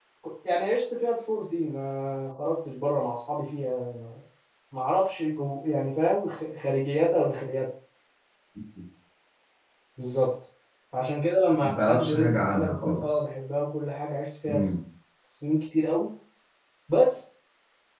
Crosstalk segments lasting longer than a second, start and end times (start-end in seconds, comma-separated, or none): 11.6-13.0